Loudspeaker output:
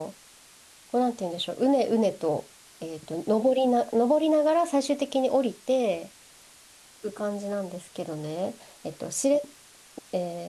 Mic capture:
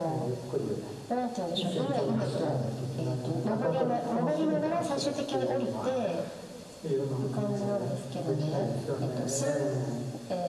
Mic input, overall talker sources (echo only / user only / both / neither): both